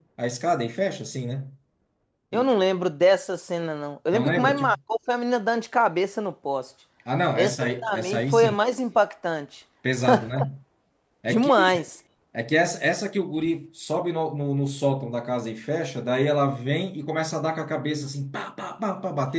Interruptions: present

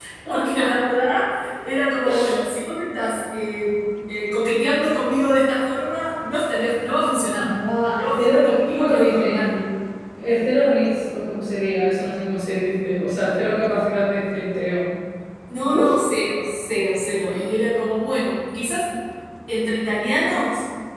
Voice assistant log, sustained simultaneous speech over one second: present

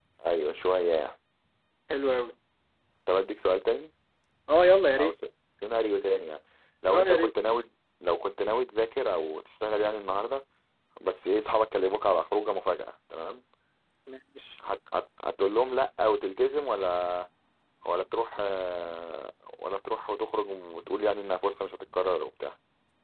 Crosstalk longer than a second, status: none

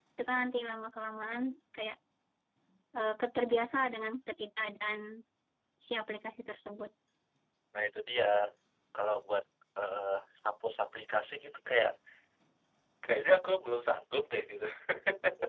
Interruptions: none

